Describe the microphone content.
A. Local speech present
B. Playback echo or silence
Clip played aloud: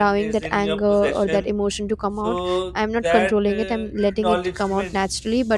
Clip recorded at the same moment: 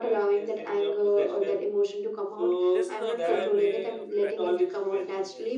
A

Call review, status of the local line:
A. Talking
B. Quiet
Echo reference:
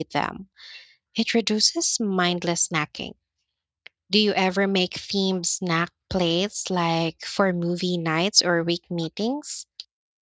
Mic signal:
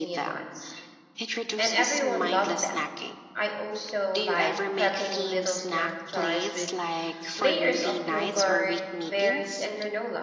A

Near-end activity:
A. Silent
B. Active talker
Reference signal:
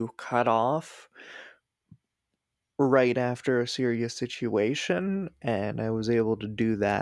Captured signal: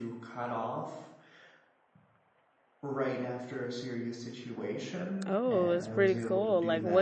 B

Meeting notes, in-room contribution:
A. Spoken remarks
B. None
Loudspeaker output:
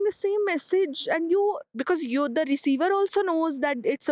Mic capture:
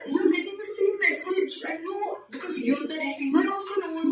B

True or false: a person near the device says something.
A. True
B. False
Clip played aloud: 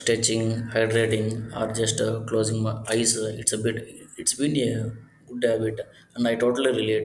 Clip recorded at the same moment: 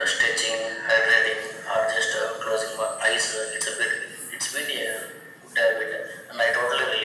B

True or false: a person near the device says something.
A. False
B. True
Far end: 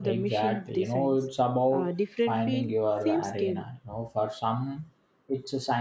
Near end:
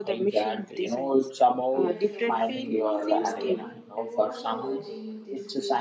B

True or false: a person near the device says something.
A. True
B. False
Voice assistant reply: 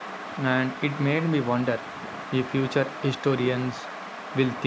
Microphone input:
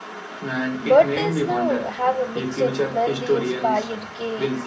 A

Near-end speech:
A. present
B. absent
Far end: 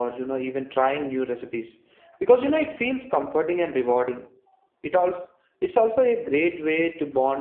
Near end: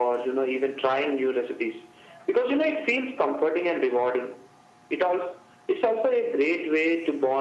B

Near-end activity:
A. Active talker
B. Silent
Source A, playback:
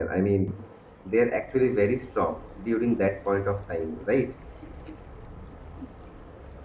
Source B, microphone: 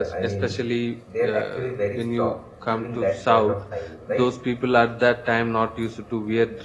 A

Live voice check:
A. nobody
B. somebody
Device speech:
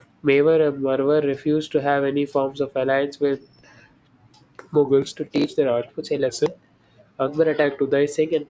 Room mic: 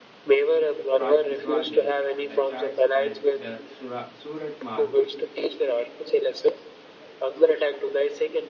B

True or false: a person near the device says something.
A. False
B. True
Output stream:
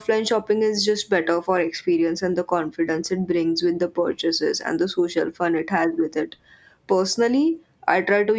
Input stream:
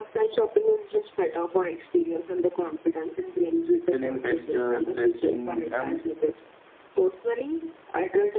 B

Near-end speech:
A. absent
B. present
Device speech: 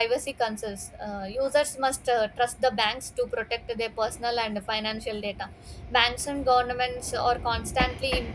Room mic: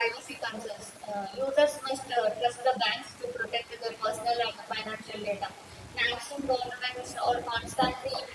A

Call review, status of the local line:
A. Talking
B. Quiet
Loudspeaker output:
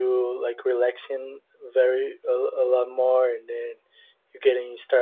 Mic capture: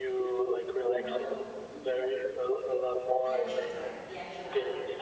A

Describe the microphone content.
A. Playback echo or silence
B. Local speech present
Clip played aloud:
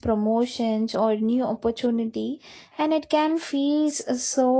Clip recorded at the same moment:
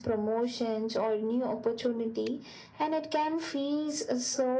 A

